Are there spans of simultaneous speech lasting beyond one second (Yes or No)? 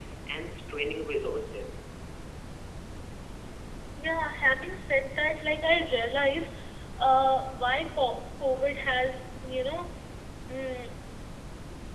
No